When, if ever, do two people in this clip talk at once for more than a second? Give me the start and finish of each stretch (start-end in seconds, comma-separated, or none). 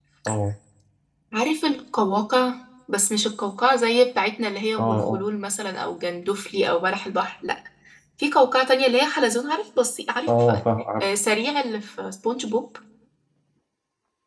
none